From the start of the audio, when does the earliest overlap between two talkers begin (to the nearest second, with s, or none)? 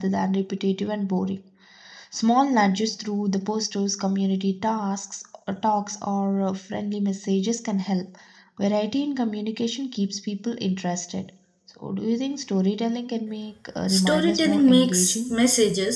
14 s